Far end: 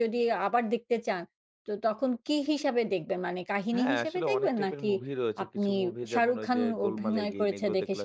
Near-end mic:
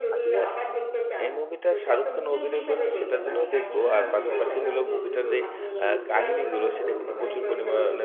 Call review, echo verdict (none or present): present